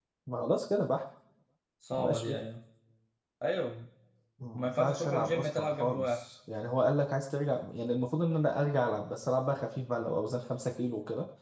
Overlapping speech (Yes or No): Yes